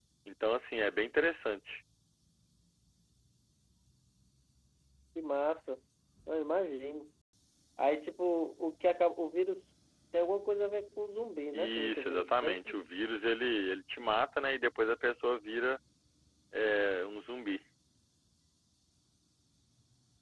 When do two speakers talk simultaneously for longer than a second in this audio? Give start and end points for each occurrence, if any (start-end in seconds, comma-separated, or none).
11.5-12.8